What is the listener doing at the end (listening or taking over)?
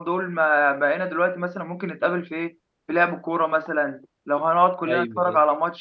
listening